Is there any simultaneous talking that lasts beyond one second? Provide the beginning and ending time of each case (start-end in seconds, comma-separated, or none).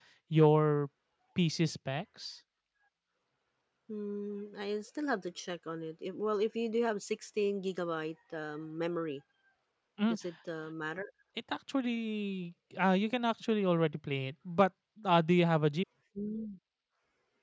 none